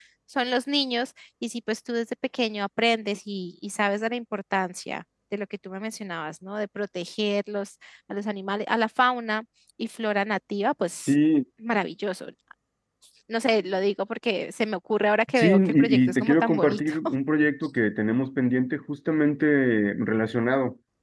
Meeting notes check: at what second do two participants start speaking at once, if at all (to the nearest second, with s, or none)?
15 s